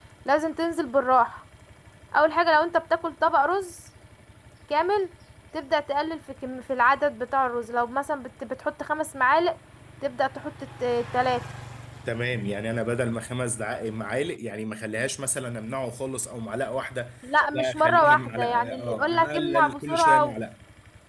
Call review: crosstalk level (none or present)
present